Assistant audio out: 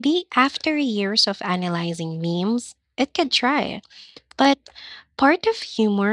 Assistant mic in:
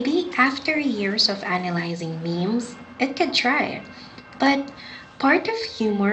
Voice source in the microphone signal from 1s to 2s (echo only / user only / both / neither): echo only